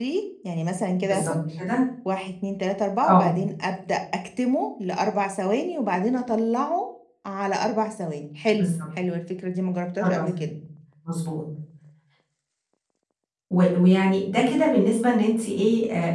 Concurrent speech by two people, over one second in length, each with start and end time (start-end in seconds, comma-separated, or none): none